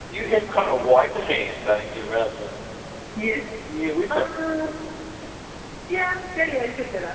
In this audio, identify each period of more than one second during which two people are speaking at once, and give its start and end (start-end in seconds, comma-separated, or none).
none